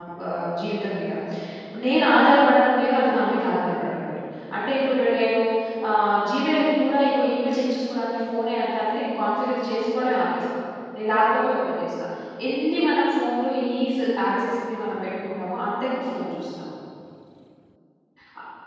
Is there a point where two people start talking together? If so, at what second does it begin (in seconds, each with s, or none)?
none